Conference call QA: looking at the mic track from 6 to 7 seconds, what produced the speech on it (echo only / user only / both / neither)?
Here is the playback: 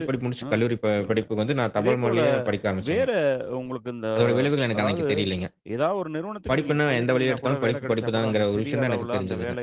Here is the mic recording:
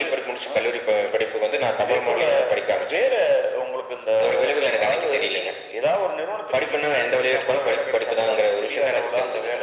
echo only